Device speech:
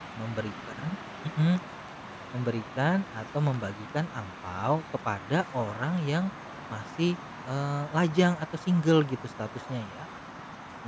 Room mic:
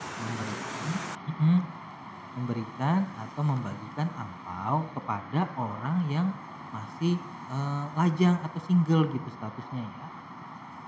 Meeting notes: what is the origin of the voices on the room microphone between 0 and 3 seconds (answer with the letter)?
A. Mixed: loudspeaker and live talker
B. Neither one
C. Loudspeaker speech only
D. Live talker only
C